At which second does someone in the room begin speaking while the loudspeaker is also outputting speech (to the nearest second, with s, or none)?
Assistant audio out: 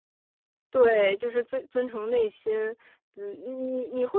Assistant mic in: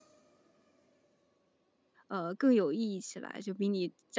2 s